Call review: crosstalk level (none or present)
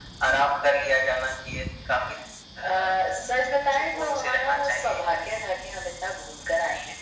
present